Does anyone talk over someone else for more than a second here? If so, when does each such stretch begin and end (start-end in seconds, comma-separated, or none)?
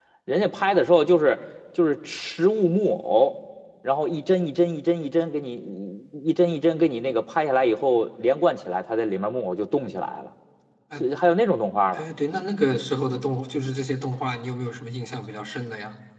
none